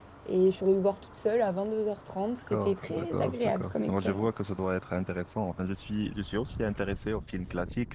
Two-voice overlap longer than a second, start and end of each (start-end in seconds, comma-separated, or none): 2.5-4.3